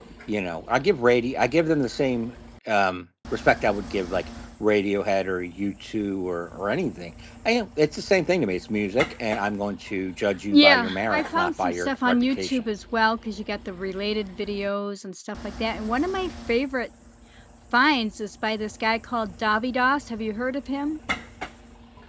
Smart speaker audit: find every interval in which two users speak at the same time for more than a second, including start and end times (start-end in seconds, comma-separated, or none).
10.5-12.6